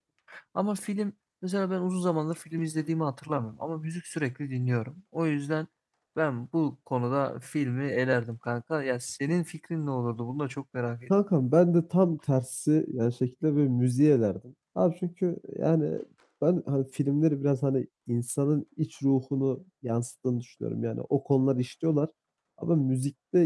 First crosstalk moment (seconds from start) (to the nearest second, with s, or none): none